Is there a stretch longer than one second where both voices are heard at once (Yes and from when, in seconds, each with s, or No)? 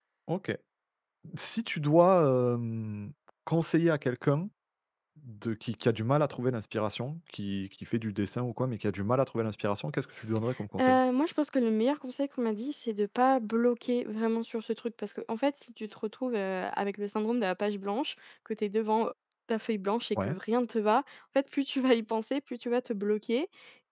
No